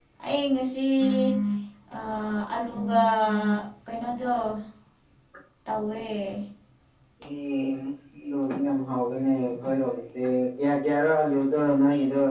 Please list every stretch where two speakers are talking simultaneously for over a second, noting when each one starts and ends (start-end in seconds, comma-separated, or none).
none